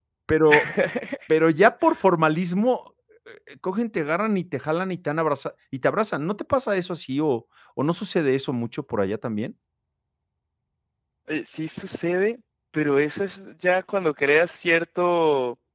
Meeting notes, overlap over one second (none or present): none